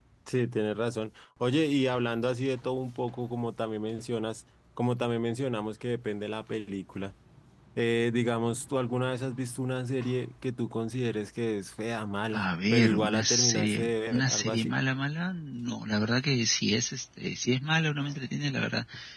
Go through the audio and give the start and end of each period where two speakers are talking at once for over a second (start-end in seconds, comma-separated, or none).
12.3-14.7